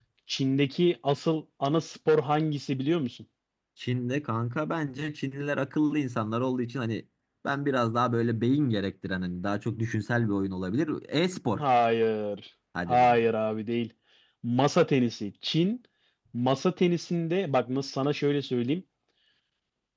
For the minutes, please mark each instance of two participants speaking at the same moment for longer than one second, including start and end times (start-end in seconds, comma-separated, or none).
none